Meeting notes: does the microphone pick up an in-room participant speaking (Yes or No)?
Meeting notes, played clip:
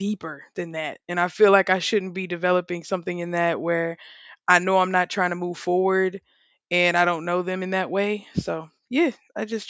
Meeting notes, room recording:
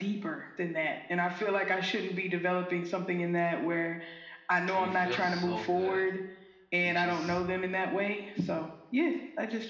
Yes